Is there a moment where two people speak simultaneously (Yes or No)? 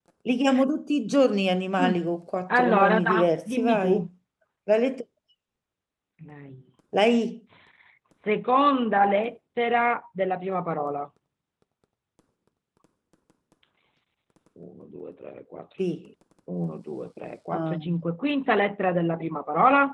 Yes